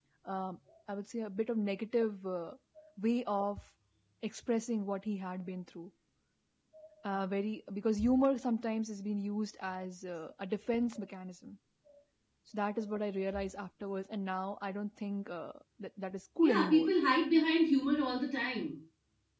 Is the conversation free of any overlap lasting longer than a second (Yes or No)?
Yes